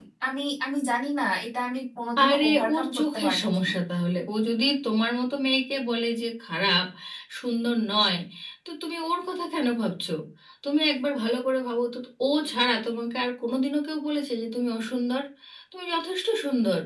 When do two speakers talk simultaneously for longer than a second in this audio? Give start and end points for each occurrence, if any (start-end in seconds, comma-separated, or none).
2.3-3.7